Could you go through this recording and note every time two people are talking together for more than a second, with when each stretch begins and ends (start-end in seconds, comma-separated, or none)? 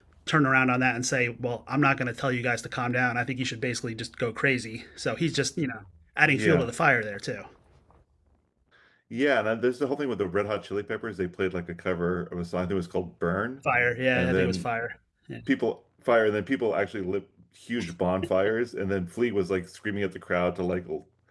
none